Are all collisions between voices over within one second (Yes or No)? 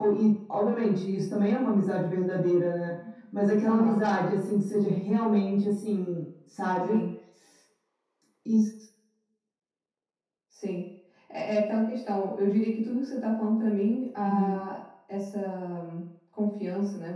Yes